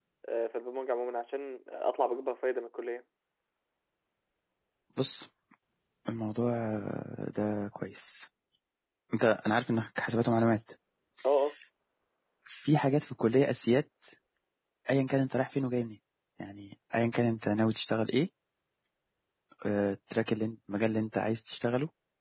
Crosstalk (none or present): none